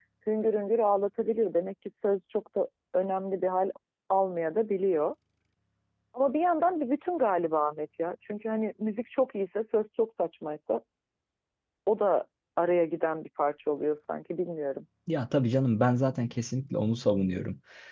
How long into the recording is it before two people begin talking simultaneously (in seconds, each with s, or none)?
none